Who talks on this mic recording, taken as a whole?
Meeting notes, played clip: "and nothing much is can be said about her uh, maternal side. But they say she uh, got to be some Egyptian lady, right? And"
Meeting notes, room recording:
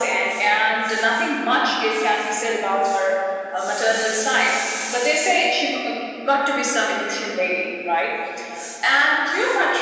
echo only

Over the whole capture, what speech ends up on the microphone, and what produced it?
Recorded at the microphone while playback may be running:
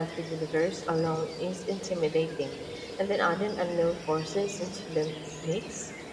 echo only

